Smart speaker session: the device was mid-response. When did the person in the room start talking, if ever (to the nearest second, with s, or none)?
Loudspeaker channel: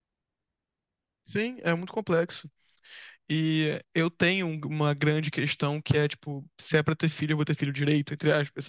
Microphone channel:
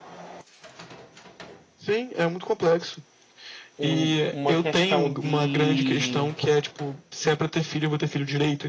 4 s